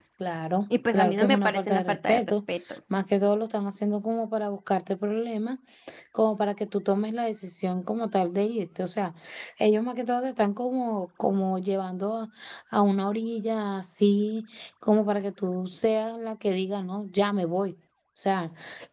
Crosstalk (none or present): present